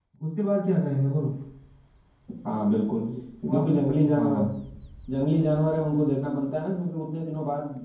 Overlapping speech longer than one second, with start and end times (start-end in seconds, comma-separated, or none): 3.1-4.5